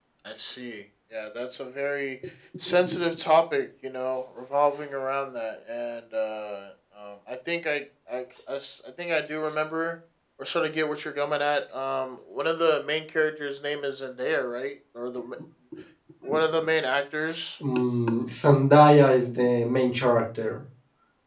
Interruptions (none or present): none